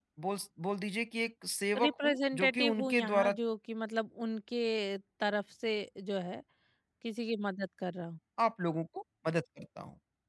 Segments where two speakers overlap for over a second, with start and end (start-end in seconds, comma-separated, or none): 1.8-3.3